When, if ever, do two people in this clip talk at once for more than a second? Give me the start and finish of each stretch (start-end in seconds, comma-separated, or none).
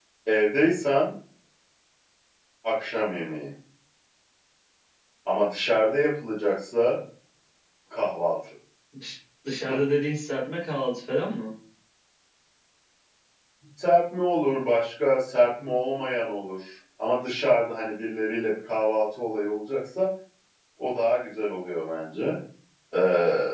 none